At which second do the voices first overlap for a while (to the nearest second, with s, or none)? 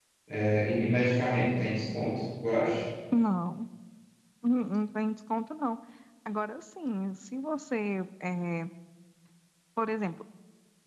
none